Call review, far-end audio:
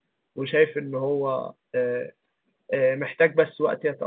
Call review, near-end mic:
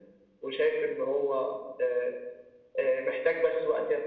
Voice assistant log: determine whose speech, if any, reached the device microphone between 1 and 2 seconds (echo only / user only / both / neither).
echo only